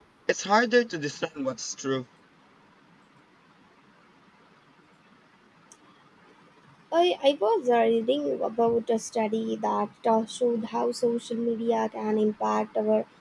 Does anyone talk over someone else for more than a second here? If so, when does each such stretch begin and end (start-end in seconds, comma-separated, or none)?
none